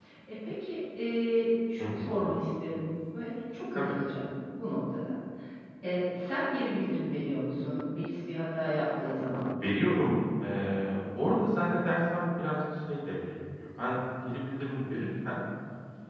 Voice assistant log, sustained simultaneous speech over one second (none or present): none